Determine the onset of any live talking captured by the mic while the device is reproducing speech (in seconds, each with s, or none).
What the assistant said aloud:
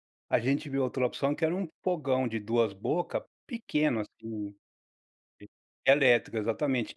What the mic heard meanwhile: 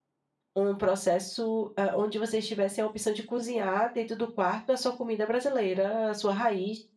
0.6 s